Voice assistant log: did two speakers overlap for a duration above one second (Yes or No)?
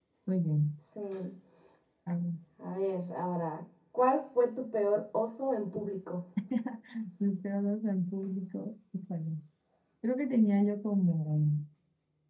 No